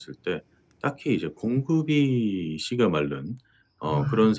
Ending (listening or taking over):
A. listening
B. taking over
A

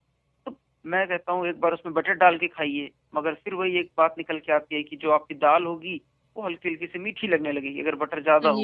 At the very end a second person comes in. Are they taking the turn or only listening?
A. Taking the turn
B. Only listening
A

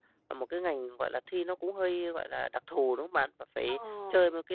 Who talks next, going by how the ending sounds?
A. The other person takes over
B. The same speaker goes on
B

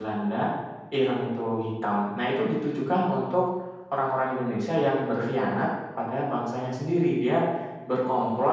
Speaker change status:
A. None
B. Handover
A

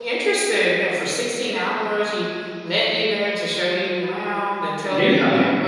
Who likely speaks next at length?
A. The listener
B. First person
B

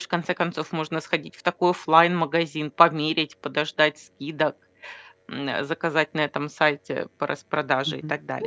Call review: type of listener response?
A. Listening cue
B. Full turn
B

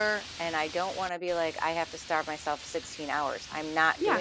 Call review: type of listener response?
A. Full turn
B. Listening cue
A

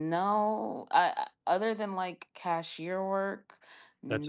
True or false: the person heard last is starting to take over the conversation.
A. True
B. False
A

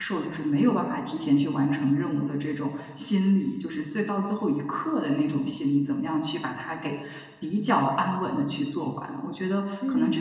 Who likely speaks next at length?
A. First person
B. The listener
A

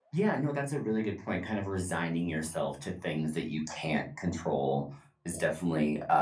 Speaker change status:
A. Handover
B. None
B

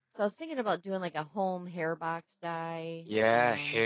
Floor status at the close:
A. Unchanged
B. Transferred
B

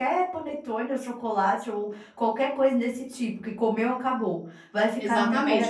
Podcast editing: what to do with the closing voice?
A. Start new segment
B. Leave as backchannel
A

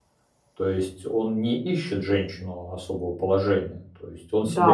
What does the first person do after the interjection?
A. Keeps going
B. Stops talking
B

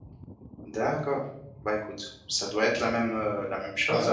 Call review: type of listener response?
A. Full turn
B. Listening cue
A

